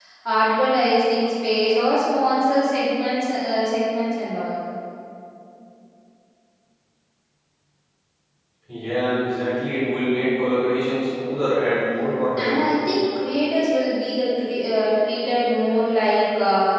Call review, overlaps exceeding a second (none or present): none